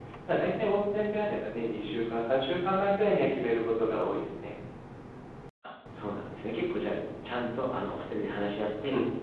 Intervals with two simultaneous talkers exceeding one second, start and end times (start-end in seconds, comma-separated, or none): none